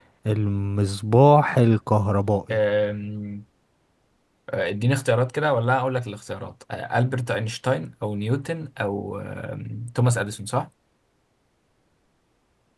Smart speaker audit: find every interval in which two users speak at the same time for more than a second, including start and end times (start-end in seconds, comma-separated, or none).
none